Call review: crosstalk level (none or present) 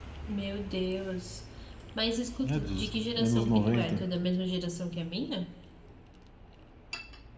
present